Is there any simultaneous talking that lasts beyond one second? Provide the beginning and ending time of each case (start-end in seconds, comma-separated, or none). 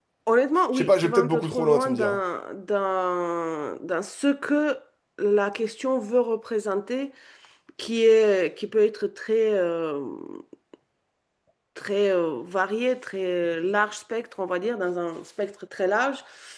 0.7-2.2